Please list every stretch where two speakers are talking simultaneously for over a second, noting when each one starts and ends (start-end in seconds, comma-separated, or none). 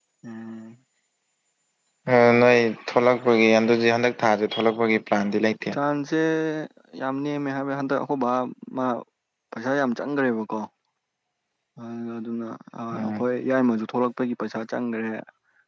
none